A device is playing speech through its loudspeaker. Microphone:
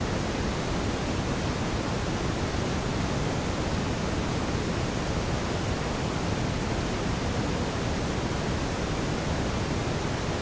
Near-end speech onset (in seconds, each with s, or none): none